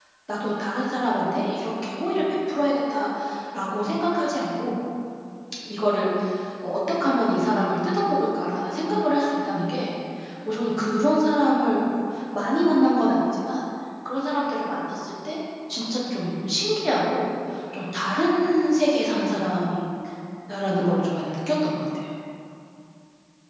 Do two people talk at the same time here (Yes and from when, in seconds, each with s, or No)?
No